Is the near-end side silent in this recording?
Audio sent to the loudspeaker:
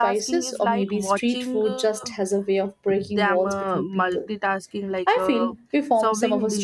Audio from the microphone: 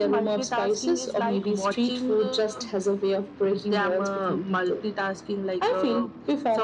Yes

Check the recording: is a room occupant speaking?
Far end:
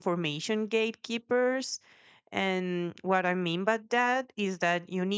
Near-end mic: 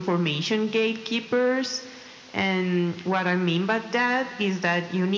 No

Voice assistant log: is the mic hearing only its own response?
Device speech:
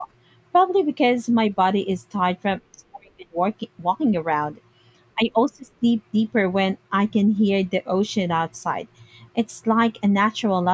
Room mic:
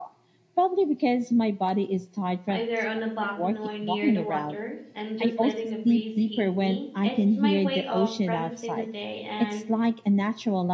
No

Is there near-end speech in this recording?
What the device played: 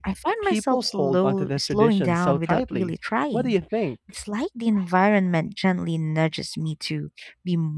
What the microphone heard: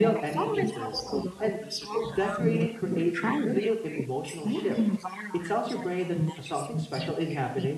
Yes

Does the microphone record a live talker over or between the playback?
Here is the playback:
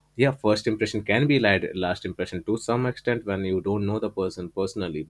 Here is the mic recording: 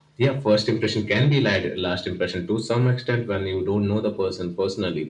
No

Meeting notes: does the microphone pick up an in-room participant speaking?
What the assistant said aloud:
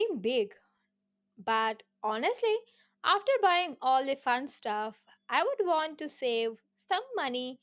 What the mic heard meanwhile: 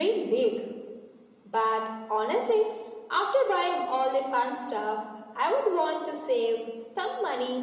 No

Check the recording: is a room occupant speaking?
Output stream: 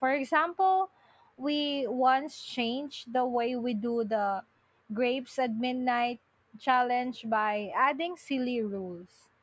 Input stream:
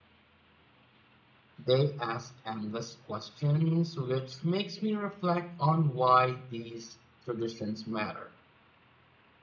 Yes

